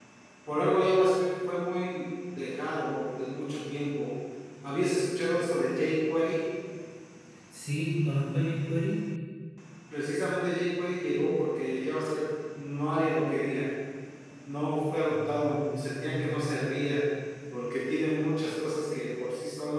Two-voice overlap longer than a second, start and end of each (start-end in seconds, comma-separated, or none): 15.1-16.5